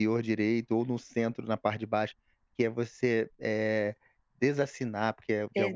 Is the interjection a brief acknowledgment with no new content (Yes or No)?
Yes